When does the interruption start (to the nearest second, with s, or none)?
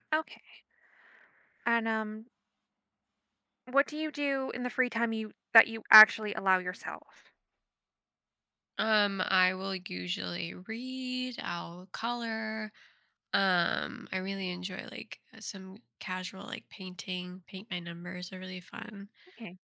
none